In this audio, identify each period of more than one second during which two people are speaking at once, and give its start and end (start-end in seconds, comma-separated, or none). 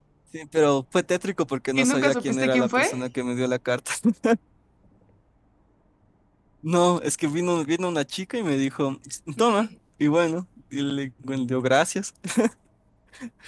1.8-3.0